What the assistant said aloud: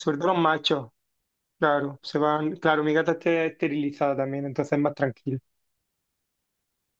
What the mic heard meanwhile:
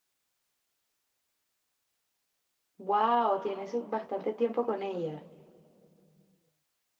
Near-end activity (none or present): present